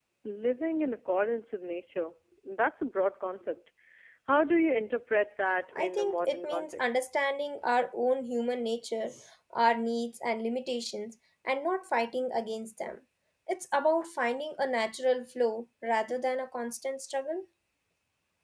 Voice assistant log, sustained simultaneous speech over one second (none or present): present